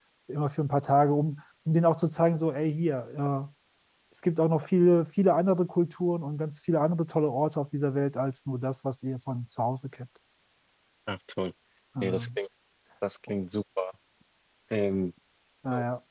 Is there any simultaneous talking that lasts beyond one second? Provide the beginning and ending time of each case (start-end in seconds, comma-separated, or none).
none